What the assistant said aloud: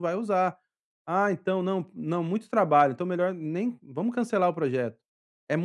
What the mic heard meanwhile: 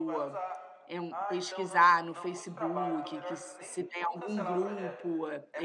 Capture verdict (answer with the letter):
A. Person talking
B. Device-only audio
A